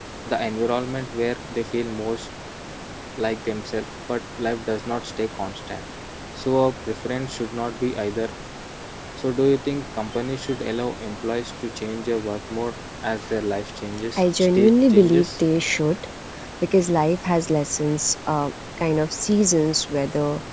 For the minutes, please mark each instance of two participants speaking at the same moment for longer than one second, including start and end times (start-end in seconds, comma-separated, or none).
14.2-15.4